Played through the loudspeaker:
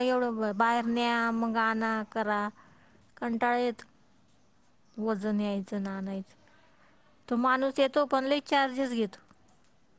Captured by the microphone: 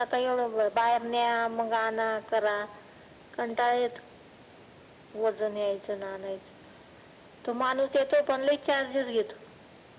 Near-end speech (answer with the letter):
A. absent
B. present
A